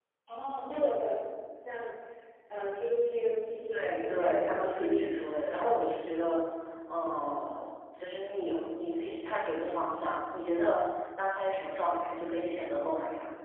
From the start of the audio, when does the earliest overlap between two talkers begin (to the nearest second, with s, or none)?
4 s